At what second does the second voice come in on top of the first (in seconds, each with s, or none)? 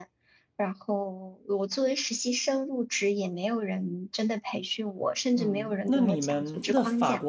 5.4 s